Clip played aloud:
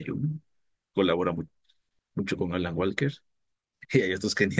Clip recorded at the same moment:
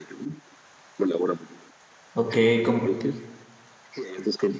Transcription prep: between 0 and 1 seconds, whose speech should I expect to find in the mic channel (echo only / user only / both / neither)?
echo only